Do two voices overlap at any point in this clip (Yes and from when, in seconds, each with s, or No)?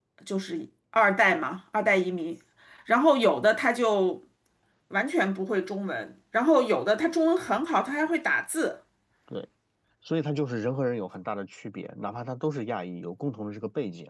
No